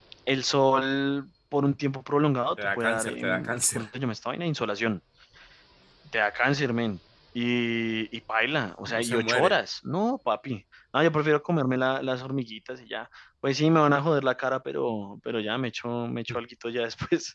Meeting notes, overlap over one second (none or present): present